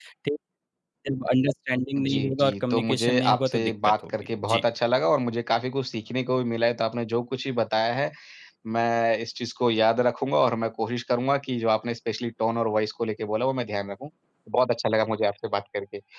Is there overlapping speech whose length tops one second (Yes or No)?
Yes